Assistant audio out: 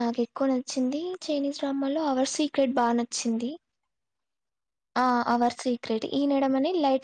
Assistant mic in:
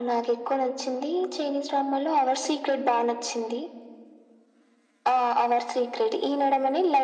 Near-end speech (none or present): none